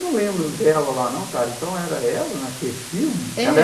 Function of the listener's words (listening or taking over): listening